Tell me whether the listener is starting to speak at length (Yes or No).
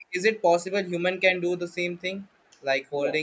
No